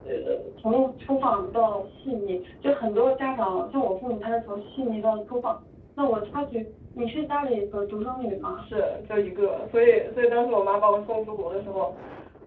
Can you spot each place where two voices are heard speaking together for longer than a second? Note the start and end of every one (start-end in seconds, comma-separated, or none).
none